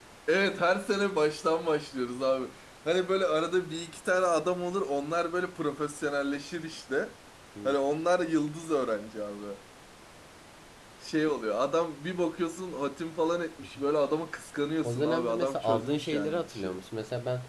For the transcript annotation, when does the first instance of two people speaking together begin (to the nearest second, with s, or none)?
15 s